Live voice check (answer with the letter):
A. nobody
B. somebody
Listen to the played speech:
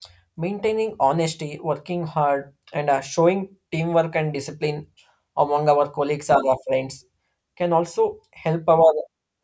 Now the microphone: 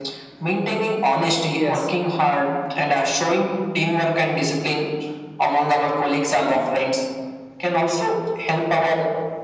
B